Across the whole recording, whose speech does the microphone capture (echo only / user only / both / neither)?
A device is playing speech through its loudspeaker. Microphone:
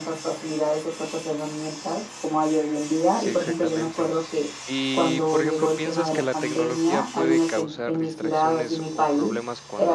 both